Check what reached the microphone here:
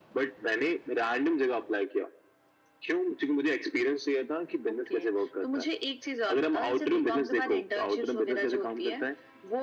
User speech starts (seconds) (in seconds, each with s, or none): none